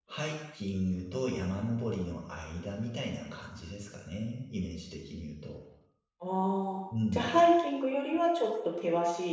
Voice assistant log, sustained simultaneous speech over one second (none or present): none